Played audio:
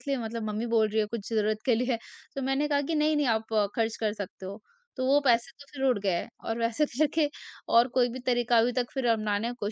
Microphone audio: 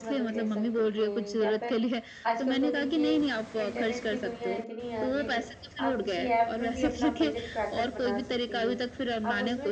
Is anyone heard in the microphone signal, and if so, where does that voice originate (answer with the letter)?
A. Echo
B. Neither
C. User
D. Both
D